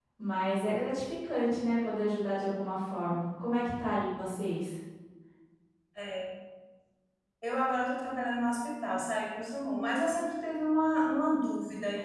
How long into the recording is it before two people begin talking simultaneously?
none

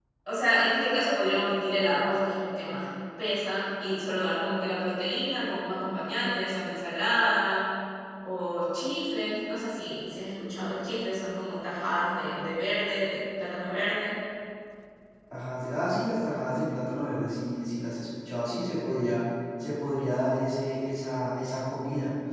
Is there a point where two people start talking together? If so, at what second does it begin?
none

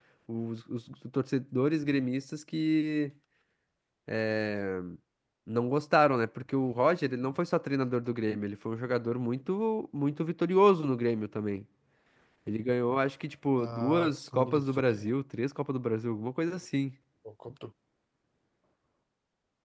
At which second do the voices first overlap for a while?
14 s

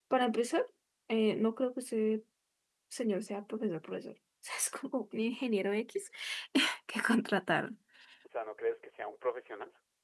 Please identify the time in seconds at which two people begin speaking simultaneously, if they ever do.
none

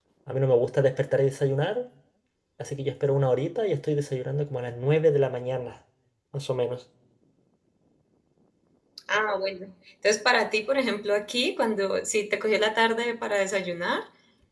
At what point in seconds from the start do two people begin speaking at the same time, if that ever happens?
none

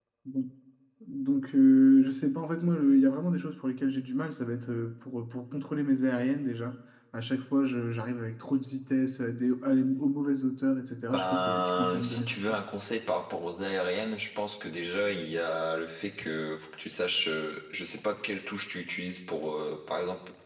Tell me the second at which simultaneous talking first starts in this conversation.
11 s

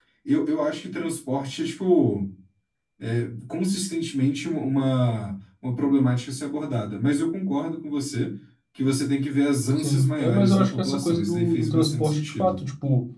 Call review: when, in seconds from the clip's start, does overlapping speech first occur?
10 s

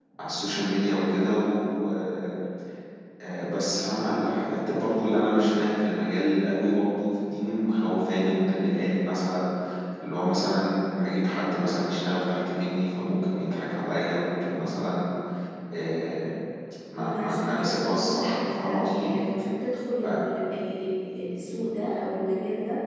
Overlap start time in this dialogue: 17 s

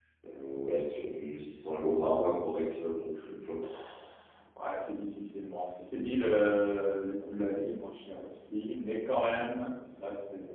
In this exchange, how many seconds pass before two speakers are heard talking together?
none

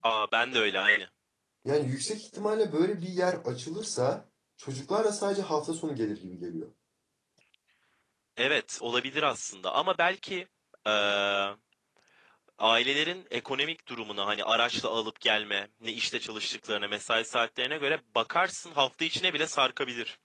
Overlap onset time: none

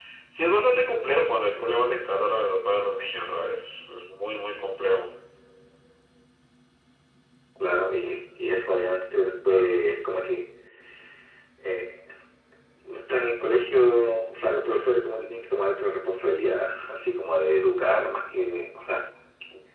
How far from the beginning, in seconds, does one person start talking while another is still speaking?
none

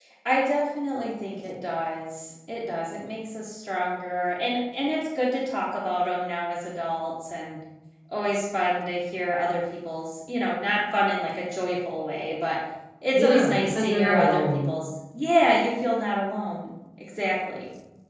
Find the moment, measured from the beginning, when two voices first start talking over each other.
13 s

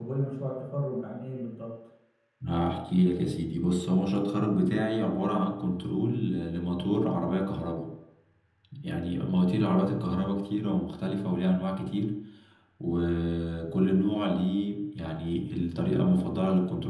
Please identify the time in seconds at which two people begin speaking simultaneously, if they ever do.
none

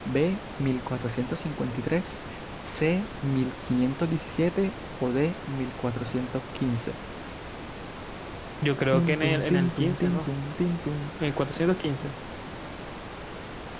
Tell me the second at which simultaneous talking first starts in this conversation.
9 s

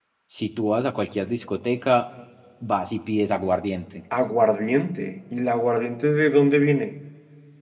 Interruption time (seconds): none

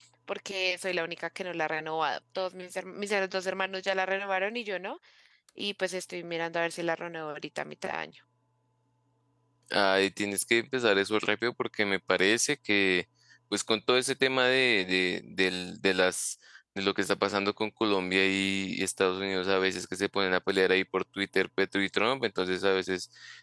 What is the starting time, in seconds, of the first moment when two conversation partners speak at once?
none

